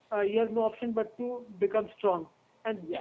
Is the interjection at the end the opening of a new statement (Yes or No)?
No